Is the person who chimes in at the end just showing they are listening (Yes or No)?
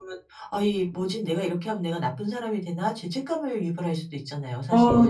No